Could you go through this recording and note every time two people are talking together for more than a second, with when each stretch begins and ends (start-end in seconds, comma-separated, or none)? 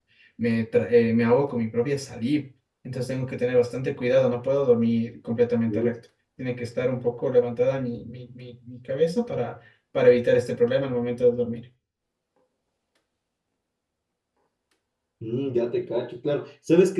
none